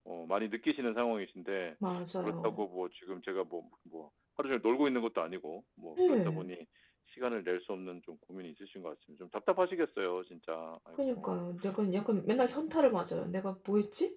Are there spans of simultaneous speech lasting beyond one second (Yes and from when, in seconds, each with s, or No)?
No